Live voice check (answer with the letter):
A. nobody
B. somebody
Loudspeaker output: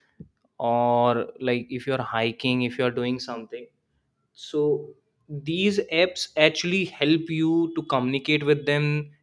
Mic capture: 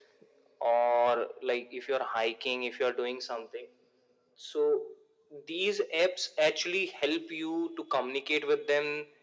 A